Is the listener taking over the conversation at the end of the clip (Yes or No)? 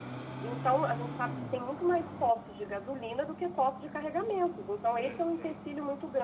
No